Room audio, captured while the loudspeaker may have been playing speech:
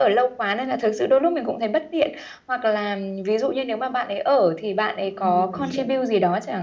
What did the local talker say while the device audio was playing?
ừm, mình hiểu,

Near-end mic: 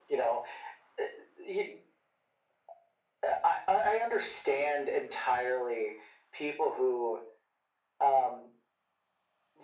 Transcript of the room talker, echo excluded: none

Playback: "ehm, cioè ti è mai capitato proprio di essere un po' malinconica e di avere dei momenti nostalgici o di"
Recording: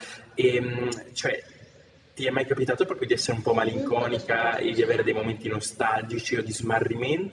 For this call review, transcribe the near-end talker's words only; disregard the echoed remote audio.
ovunque questo posto sia.

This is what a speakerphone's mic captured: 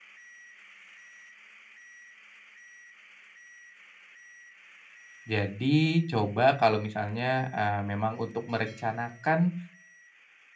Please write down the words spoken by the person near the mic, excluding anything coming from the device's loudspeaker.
Jadi coba kalau misalnya, eee, memang untuk merencanakan

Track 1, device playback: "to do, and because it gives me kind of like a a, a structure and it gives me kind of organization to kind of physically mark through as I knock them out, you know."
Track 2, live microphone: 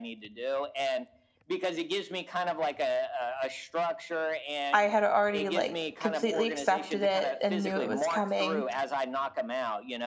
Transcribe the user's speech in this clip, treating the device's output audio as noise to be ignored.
I had already like completely accepted it and knew it was coming

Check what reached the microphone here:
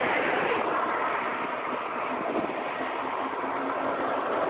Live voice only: none

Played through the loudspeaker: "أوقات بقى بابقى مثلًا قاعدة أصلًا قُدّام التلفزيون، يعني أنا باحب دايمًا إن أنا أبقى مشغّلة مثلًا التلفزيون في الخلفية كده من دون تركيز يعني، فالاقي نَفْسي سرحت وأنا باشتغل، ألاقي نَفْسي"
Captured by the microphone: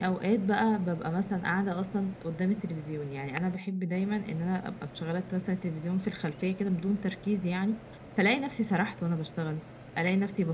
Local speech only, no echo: none

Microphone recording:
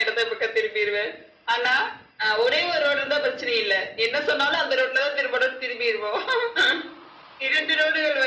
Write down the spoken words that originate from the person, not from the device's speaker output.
none

